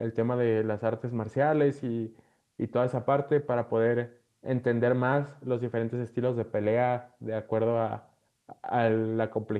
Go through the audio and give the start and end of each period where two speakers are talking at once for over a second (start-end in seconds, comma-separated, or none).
none